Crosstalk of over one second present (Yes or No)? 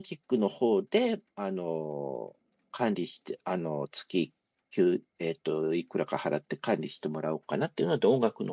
No